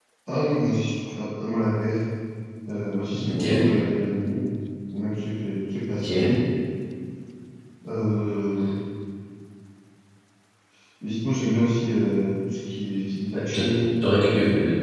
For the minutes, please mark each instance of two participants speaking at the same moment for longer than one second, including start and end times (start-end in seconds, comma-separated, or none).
none